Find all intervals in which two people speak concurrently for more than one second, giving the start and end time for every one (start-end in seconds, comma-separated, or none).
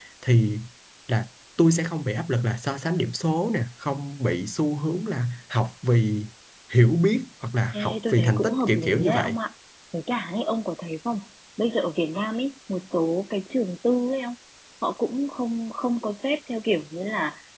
7.7-9.4